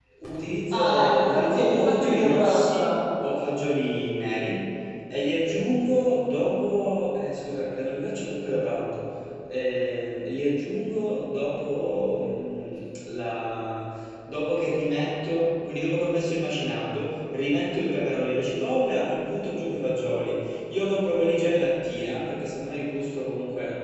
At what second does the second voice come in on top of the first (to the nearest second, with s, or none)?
1 s